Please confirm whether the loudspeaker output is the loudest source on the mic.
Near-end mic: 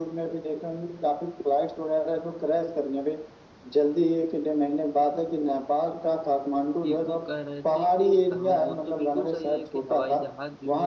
Yes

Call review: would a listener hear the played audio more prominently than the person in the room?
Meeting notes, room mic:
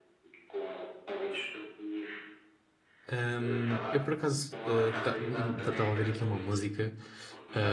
No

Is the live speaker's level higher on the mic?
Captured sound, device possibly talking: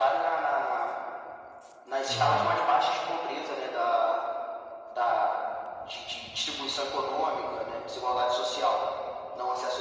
No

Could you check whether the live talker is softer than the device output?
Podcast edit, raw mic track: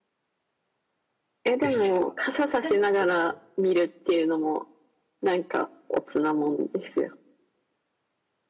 Yes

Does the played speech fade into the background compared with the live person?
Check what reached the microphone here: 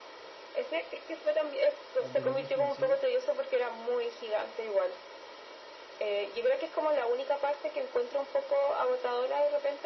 No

